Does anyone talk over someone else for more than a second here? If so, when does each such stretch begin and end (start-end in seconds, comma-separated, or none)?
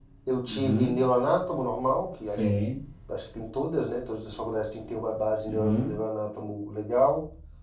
none